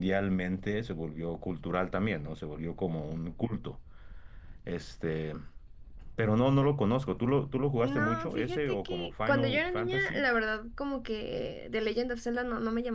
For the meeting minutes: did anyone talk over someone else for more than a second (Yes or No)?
Yes